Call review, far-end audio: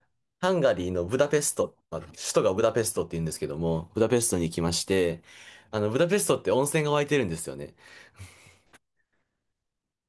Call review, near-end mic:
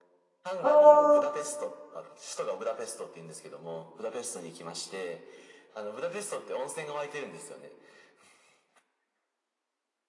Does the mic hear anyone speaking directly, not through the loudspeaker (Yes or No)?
Yes